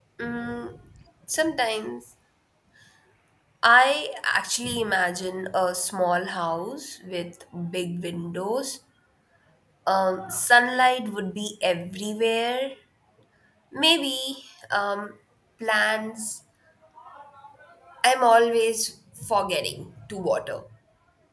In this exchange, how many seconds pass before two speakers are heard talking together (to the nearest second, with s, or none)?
none